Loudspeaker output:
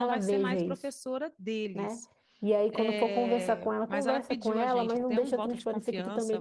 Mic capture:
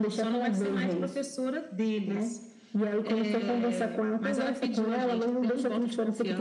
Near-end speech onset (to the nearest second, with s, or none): none